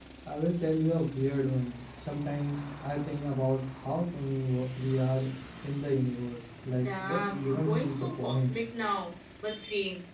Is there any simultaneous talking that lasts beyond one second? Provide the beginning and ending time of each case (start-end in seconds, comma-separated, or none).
6.8-8.6